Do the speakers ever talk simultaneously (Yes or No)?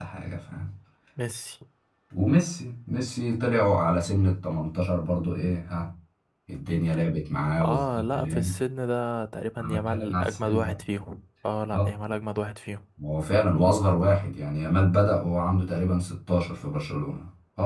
Yes